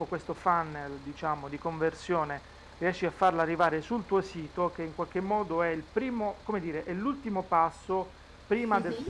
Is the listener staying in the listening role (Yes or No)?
Yes